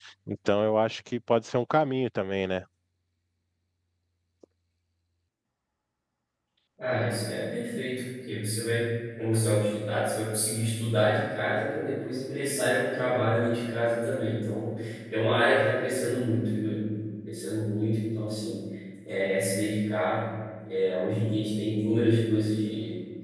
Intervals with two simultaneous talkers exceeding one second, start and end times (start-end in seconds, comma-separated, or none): none